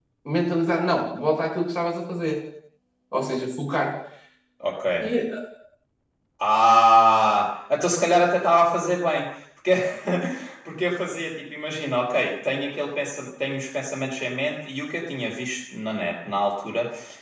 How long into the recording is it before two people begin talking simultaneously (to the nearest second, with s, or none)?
none